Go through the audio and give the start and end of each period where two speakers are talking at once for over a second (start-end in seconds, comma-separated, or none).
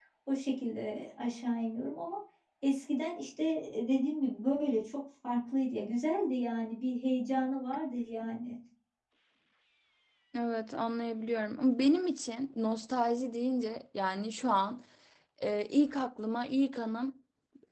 none